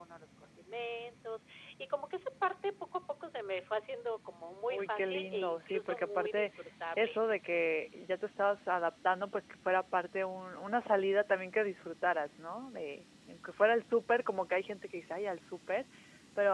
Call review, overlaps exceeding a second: present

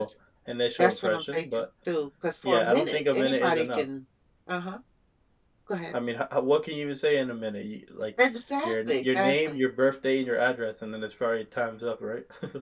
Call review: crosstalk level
present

